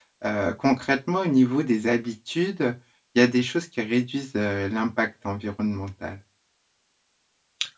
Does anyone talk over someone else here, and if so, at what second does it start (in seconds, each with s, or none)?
none